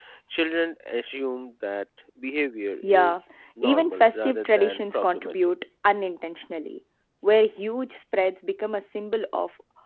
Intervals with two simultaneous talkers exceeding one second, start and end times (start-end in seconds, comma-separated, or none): 3.6-5.5